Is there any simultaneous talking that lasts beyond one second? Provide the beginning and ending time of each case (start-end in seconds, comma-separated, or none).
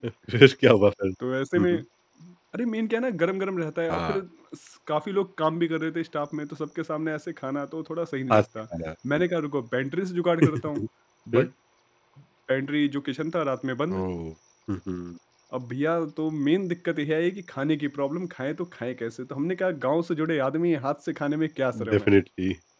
none